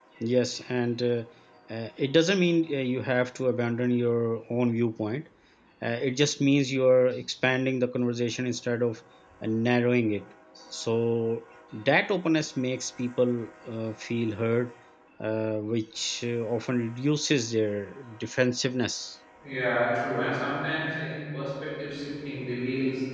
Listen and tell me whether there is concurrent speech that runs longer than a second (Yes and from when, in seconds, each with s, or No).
No